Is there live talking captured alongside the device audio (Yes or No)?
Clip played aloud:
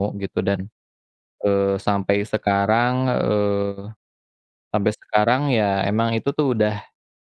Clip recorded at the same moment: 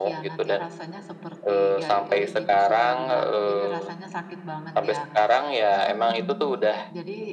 Yes